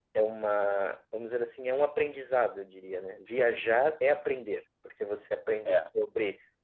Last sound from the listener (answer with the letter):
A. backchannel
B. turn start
A